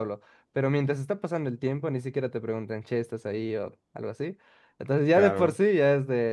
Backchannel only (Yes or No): Yes